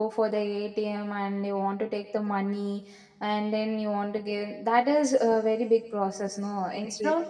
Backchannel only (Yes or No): No